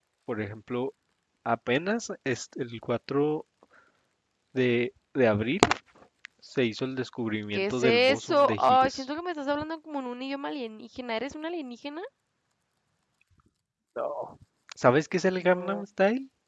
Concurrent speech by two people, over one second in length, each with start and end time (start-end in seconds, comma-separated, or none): 7.5-9.0